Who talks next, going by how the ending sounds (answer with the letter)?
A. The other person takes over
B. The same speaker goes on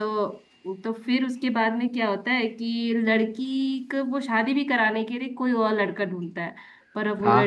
B